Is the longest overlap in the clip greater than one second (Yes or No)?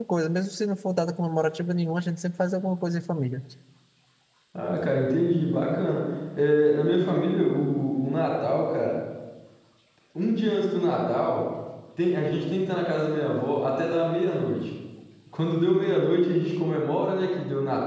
No